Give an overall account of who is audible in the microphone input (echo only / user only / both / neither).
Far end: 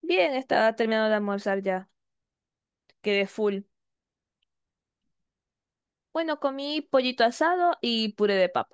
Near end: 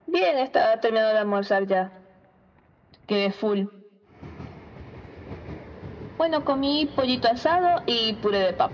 echo only